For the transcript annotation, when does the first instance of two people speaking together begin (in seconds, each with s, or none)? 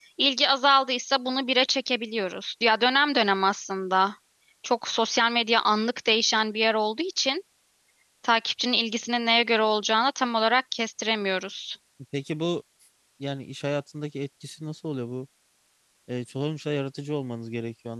none